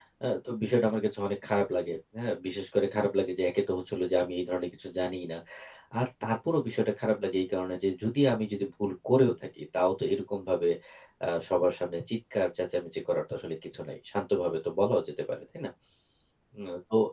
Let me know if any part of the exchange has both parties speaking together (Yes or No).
No